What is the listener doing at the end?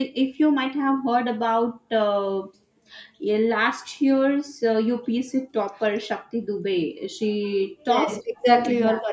taking over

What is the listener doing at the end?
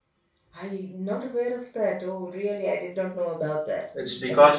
taking over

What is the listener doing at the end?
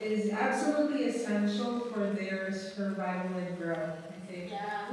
listening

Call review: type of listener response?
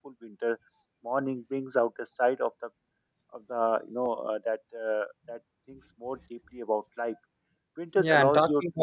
taking over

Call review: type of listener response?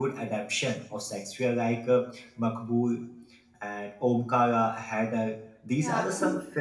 listening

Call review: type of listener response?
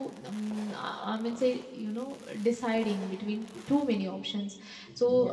listening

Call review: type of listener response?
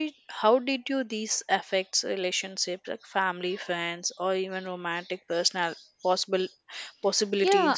taking over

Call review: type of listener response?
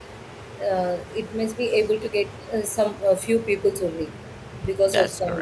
listening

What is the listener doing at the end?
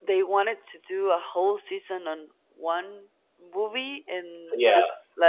listening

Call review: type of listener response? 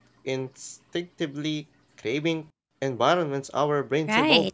taking over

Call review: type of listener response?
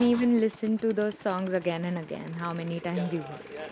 taking over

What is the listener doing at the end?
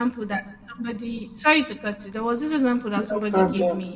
listening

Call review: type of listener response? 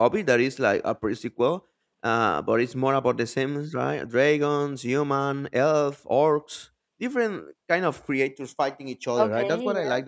listening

